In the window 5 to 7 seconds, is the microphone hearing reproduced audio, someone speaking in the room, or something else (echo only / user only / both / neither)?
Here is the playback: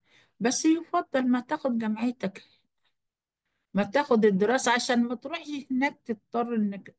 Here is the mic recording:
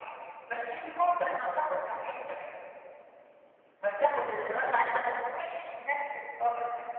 echo only